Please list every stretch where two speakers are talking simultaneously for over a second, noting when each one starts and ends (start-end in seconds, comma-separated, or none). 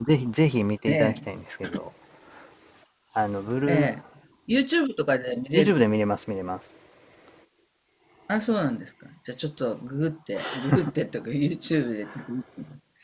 none